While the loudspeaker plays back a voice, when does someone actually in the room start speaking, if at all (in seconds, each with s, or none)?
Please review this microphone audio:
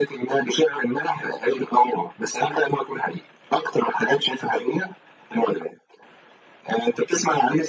none